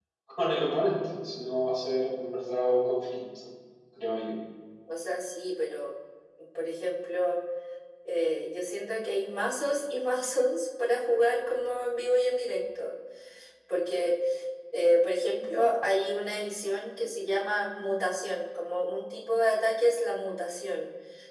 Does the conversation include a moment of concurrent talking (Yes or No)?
No